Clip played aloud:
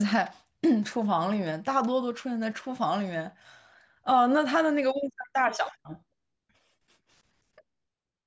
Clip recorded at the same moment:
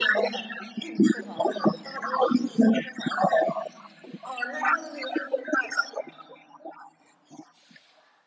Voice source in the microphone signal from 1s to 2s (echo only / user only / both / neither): echo only